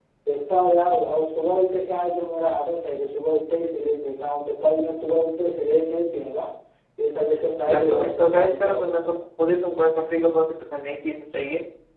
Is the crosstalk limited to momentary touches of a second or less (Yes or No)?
No